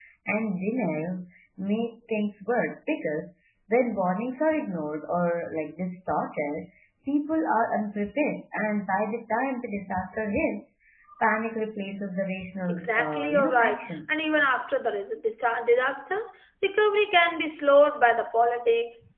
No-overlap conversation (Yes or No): No